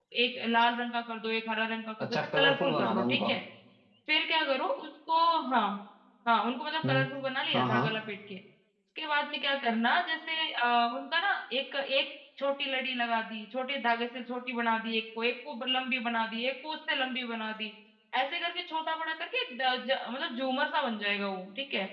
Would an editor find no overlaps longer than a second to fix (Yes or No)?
No